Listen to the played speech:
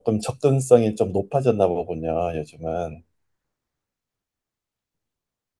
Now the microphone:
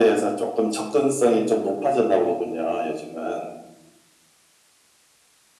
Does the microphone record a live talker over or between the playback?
No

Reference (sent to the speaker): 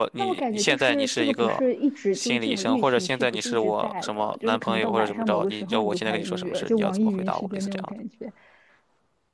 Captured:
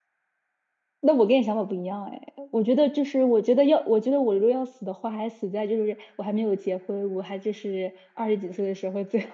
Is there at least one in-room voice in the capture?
Yes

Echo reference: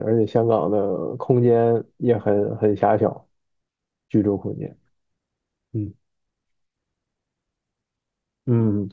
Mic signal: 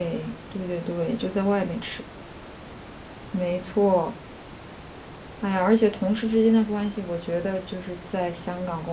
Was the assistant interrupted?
Yes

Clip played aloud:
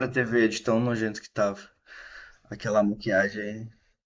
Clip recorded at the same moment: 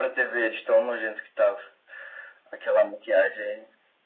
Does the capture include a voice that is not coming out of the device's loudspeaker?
No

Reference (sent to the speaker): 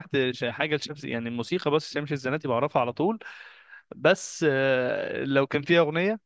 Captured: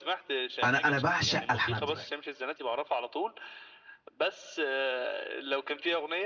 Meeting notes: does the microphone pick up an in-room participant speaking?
Yes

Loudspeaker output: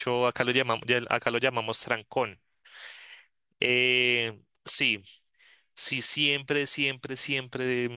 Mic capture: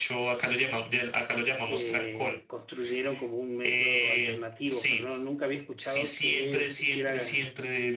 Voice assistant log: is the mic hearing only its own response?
No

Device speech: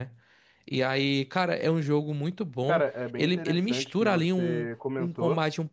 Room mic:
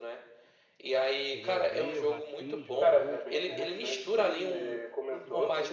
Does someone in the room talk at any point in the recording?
Yes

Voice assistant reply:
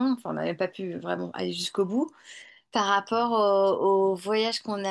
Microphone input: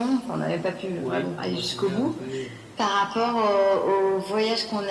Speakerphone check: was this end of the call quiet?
No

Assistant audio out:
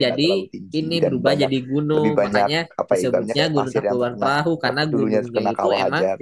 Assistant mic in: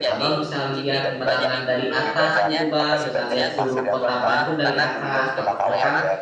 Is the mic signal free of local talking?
No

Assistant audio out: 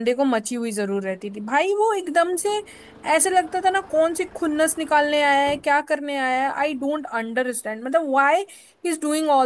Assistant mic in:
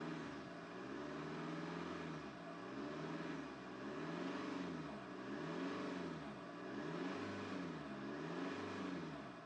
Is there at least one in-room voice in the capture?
No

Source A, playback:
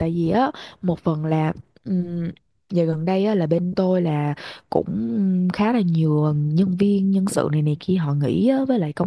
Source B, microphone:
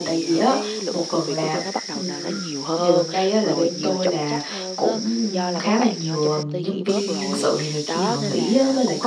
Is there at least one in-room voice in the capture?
Yes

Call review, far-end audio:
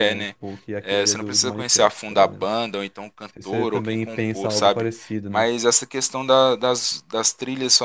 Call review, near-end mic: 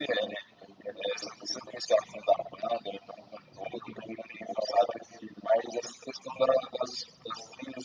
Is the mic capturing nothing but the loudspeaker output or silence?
Yes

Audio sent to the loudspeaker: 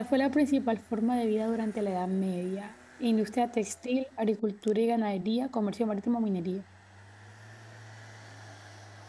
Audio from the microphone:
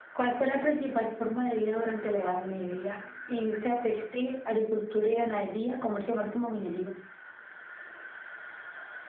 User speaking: No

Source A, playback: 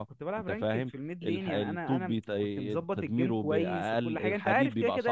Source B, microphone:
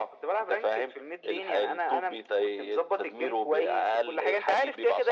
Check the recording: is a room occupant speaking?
No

